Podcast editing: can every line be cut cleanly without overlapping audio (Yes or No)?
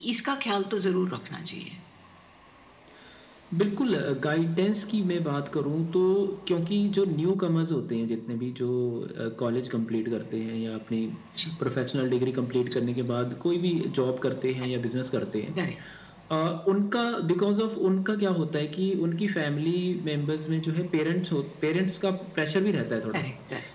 Yes